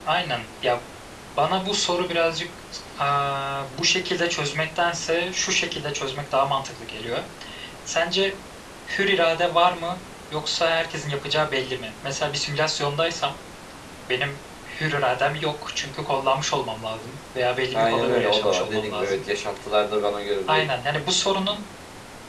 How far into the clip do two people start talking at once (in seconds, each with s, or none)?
17.7 s